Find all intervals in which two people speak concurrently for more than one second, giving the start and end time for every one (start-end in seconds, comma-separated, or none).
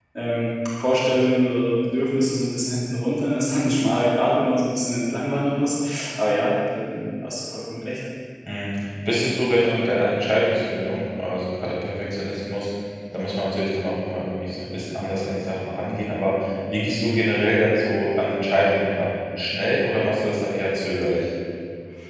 none